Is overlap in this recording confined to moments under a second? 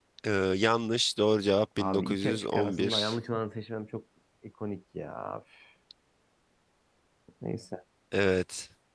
No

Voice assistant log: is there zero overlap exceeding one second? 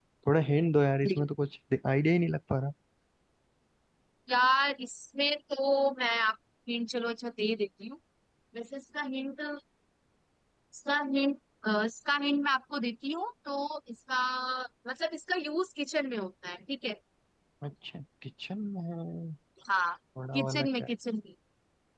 Yes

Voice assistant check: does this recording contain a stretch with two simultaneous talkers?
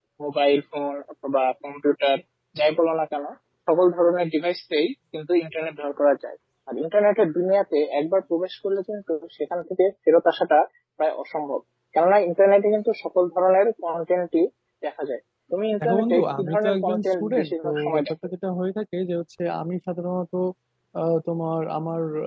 Yes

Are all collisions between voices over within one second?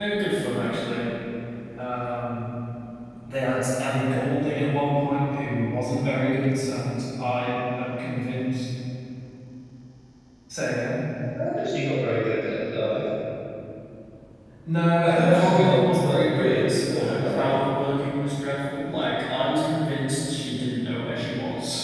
No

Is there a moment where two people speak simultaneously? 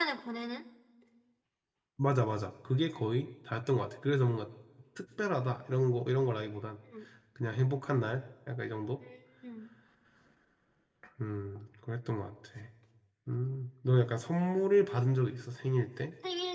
No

